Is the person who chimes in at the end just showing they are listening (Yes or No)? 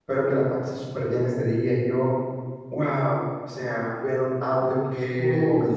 Yes